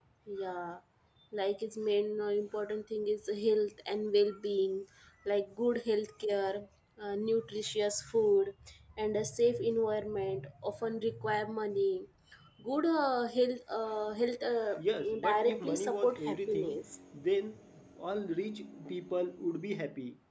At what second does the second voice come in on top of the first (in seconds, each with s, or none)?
15.2 s